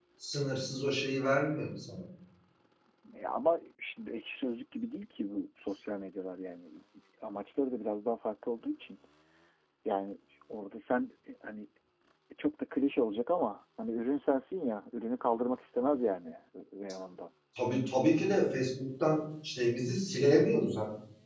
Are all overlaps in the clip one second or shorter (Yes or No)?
Yes